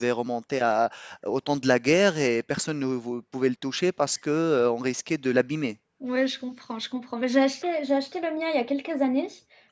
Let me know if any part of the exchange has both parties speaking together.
No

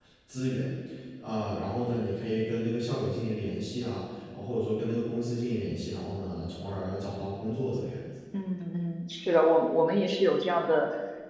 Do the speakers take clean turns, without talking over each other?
Yes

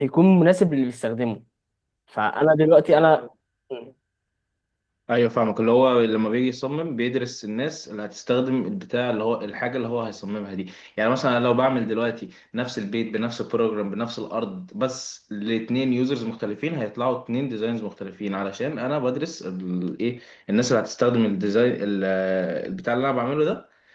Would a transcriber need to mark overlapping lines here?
No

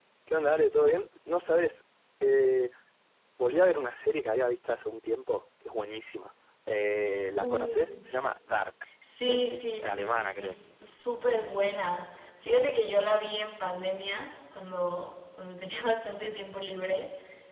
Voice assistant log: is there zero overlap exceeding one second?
No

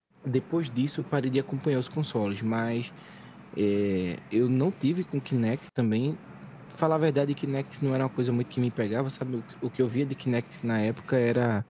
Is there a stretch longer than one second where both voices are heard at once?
No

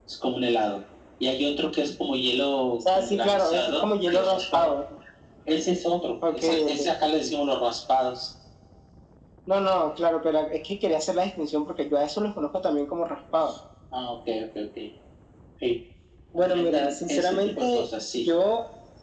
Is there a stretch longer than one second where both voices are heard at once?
Yes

